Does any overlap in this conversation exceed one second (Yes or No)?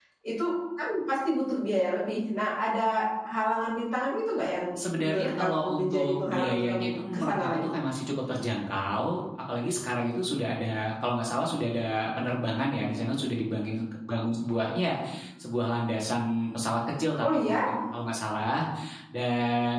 Yes